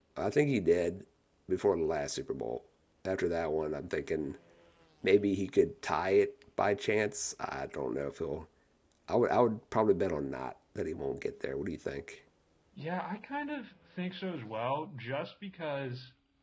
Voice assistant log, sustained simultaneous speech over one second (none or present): none